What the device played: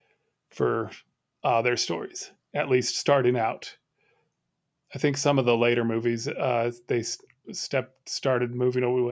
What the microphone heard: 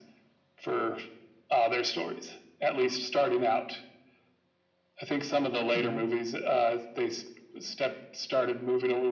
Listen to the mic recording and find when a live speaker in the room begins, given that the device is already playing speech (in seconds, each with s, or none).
5.7 s